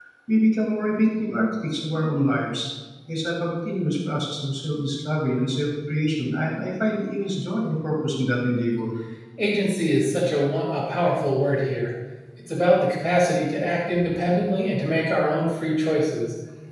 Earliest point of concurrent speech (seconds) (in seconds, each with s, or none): none